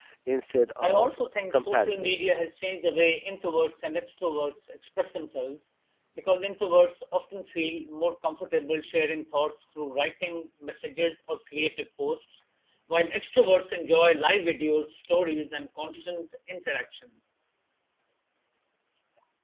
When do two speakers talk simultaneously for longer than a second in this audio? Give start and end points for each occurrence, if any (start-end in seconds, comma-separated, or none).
0.8-2.2